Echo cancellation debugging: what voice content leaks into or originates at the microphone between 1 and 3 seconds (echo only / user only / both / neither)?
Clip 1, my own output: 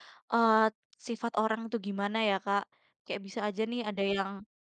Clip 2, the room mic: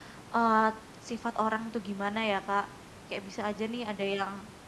echo only